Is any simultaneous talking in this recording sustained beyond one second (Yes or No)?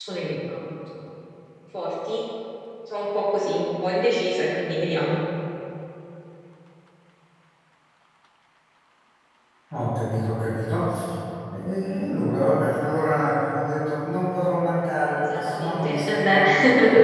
Yes